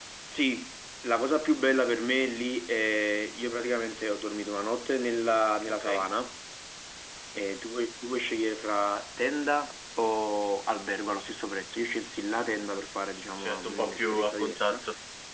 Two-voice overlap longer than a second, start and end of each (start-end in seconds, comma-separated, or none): 13.4-14.8